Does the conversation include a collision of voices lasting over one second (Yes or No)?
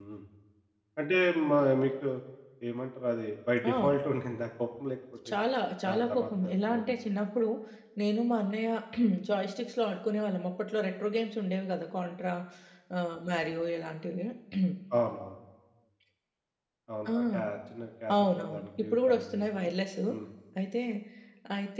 Yes